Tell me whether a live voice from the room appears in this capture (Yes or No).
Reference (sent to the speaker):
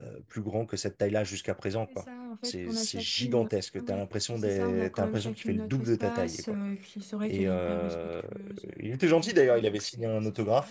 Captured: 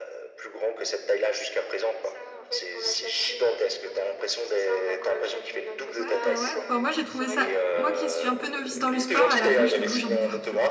Yes